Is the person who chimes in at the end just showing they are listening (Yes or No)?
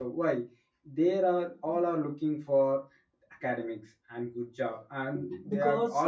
Yes